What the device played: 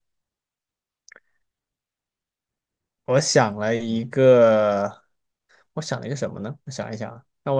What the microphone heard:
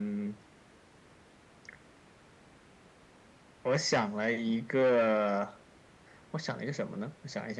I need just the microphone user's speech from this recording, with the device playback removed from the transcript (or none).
none